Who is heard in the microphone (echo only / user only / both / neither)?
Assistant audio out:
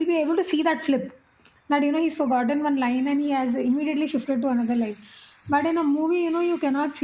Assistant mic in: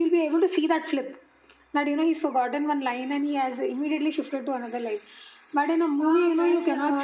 both